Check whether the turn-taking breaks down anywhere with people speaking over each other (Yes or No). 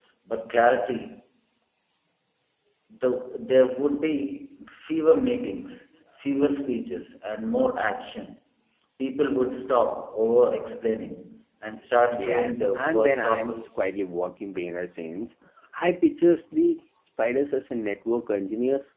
Yes